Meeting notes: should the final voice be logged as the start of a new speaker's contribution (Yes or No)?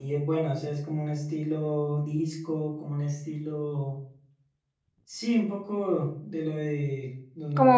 No